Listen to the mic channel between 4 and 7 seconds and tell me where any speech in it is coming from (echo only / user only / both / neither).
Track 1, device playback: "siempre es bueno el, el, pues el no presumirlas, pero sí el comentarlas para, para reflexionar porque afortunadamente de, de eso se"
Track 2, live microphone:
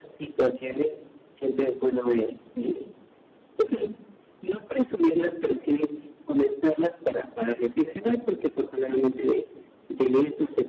echo only